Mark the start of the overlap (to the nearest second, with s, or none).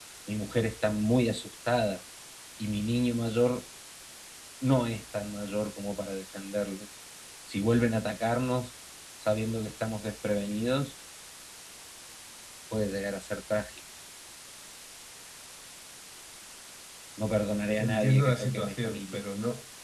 18 s